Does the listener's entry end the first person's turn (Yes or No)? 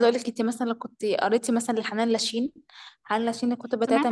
Yes